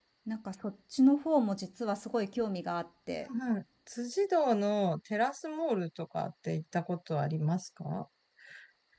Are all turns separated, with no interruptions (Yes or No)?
Yes